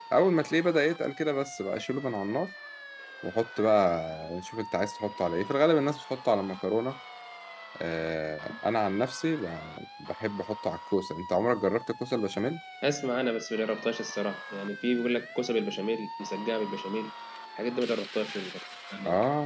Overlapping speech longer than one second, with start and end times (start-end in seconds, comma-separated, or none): none